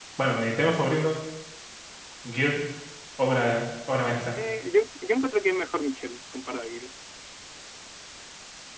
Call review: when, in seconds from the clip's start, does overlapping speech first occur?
none

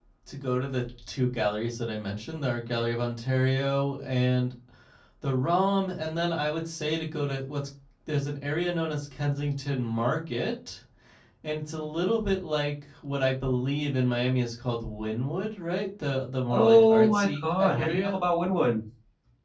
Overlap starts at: 16 s

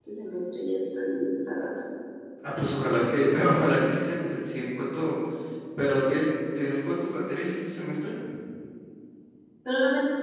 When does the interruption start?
none

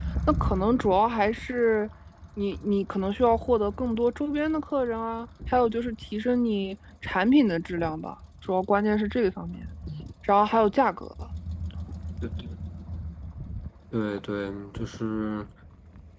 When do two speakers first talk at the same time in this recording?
none

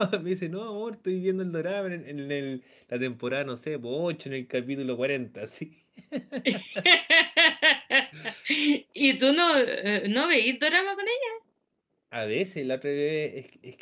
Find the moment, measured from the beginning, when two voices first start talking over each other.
none

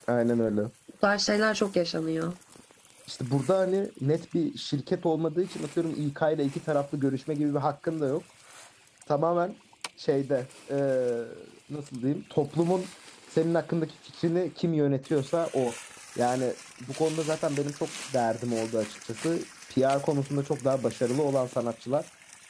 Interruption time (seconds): none

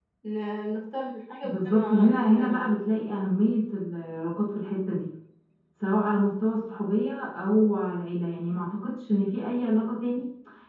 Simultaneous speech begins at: 1 s

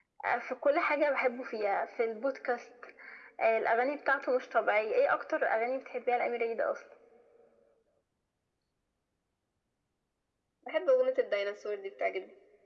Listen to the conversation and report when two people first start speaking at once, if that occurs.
none

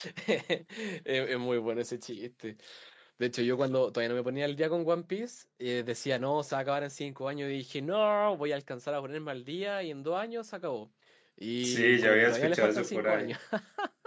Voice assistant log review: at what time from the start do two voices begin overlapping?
12 s

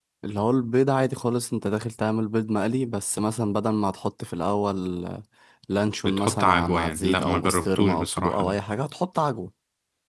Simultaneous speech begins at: 6 s

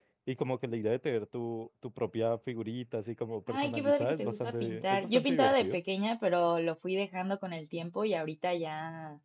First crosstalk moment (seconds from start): 3 s

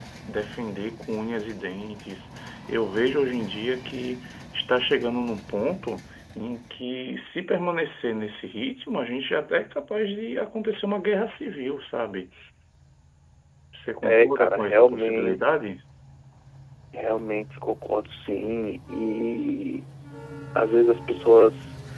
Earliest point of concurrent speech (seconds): 14 s

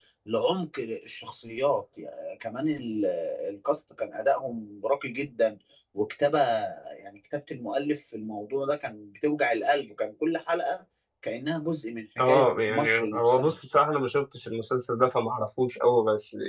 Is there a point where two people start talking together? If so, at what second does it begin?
12 s

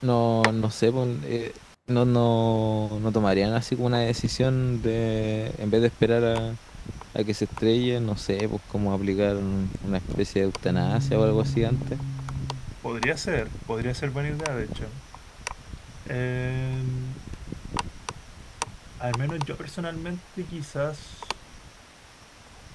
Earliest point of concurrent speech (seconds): 11 s

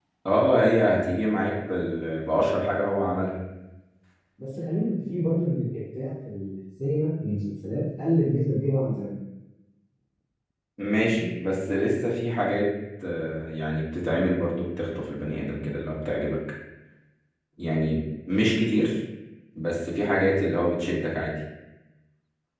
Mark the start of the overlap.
none

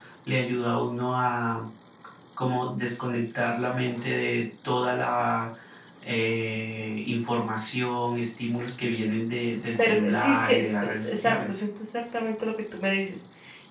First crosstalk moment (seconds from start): 10 s

